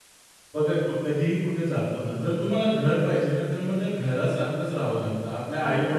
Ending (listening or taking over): listening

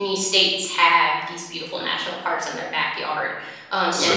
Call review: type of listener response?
listening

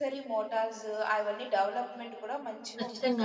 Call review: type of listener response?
taking over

